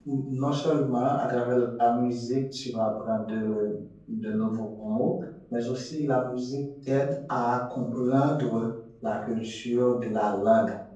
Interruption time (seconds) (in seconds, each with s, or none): none